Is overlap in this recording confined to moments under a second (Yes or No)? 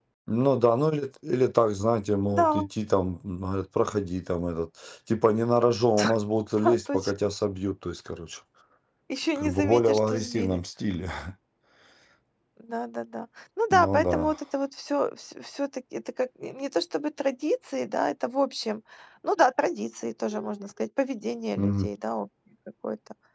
No